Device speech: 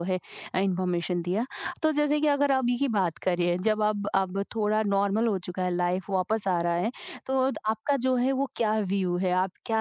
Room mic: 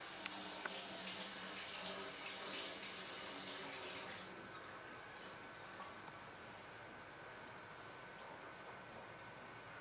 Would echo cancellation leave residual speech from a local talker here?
No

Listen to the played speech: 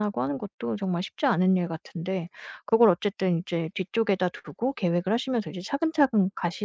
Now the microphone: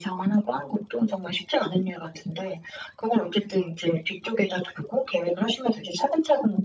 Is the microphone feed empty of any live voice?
Yes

